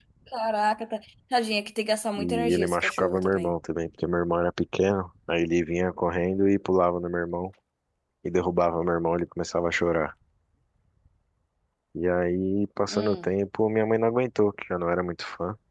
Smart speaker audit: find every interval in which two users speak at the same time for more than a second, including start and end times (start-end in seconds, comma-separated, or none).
2.2-3.5